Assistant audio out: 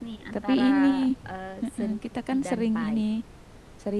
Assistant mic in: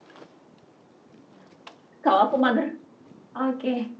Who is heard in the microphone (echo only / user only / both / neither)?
user only